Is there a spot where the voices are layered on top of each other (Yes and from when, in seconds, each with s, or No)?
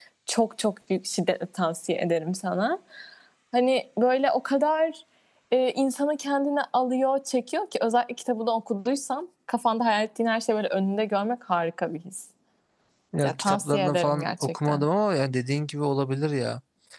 Yes, from 13.2 s